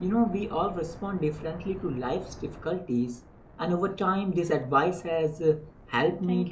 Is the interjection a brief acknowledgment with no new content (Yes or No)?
Yes